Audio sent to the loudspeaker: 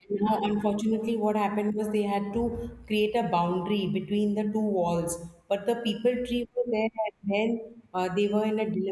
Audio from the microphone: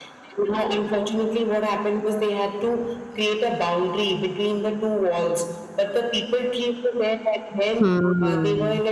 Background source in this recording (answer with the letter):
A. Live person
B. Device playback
B